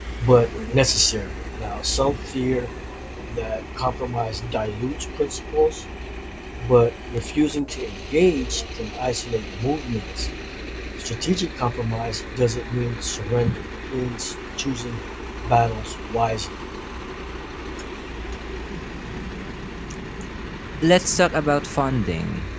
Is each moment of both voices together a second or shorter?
Yes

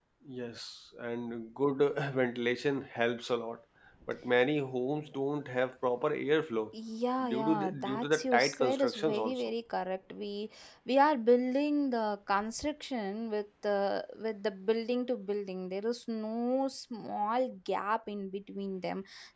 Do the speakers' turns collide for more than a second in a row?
Yes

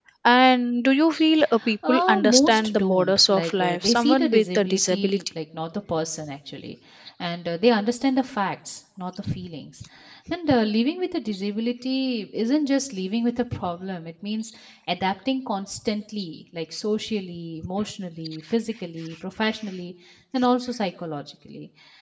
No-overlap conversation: No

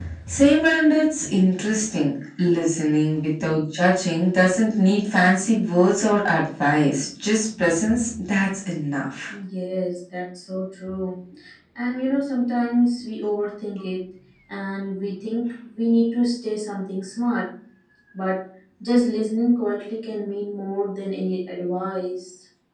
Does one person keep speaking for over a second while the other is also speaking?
No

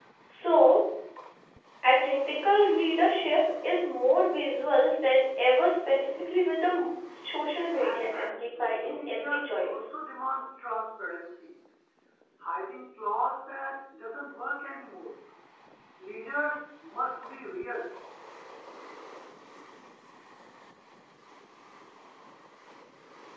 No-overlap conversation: No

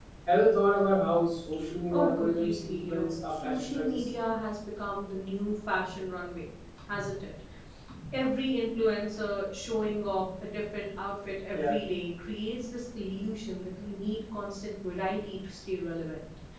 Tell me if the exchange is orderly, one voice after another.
No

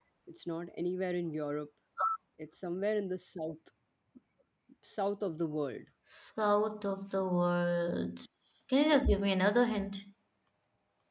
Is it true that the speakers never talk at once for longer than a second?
Yes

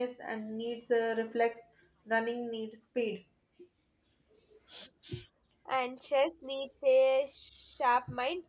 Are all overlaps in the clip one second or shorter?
Yes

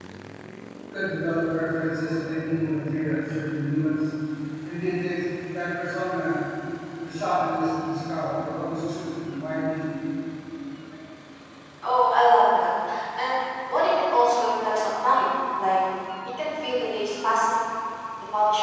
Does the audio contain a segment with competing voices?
No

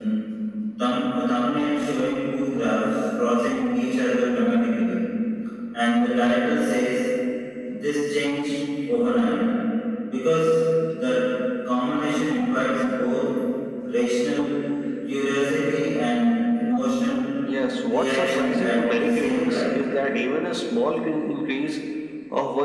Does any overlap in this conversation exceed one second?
Yes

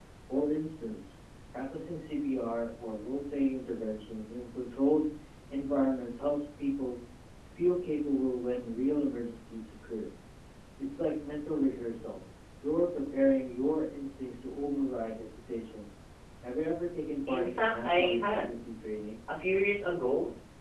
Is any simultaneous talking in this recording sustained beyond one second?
Yes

